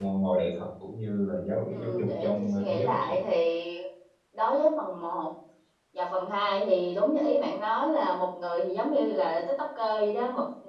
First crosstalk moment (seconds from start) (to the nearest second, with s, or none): 2 s